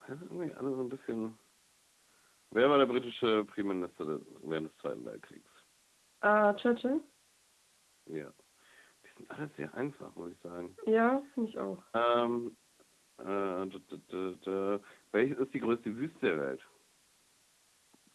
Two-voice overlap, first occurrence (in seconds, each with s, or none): none